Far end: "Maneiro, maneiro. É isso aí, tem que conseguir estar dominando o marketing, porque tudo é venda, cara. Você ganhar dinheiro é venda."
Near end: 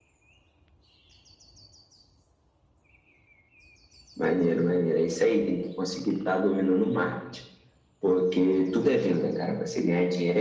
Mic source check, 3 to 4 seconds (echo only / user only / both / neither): neither